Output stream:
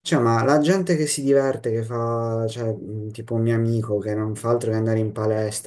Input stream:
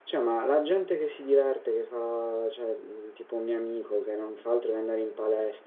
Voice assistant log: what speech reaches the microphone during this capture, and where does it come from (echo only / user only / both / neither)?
echo only